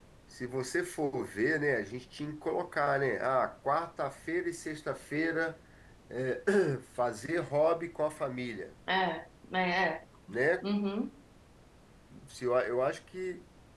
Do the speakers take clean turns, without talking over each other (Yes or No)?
Yes